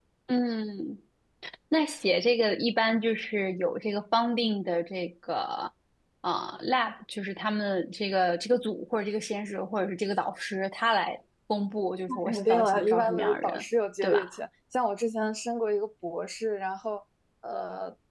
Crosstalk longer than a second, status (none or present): present